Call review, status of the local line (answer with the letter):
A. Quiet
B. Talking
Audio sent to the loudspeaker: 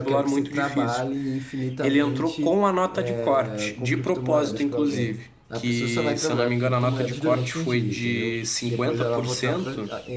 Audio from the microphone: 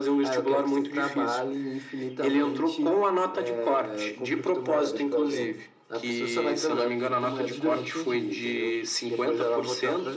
A